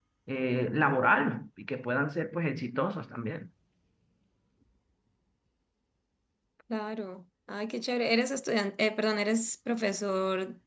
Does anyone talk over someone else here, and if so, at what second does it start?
none

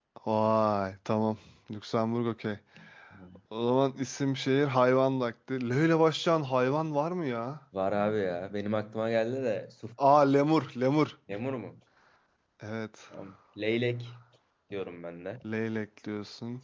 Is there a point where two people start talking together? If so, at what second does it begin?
none

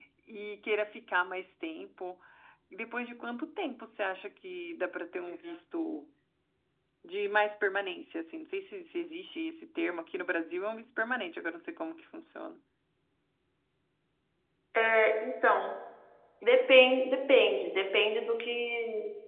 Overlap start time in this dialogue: none

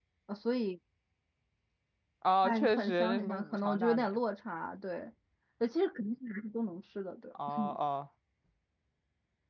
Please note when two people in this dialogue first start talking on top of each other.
2 s

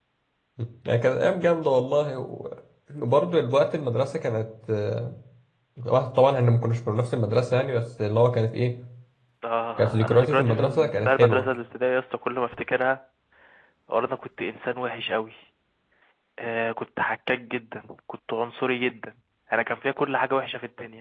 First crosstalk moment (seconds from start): 10 s

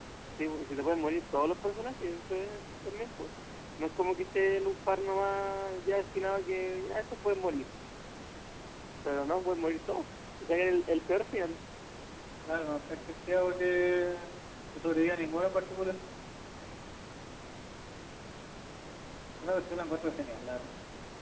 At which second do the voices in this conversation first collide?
none

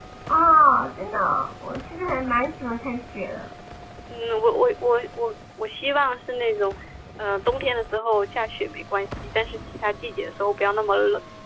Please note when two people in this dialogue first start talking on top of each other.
none

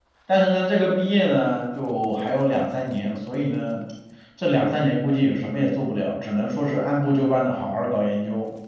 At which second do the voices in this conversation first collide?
none

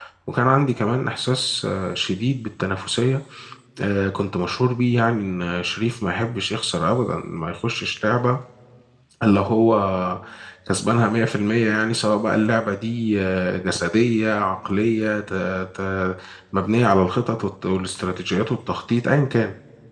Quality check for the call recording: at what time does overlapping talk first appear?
none

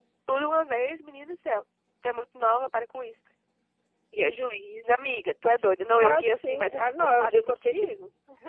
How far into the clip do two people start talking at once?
6 s

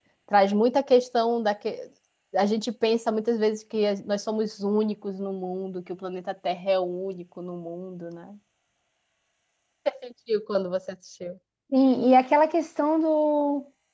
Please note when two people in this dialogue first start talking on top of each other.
none

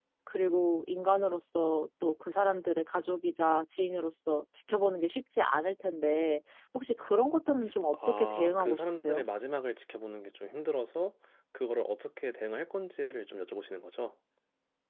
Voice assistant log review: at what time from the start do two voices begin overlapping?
8 s

